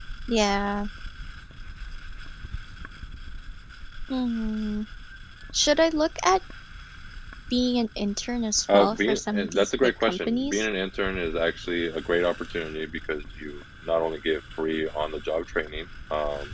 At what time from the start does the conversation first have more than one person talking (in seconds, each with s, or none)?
8.7 s